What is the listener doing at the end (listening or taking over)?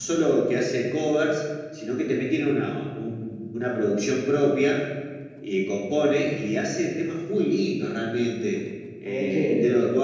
listening